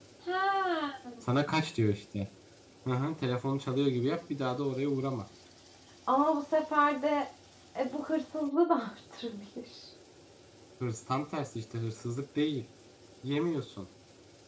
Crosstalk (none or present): none